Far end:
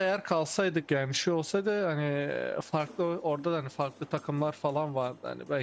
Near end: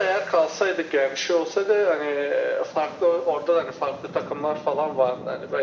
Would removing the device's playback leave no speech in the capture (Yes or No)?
Yes